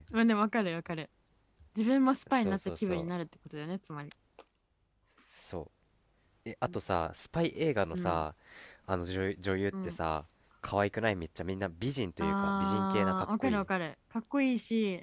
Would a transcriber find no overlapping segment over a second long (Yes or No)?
No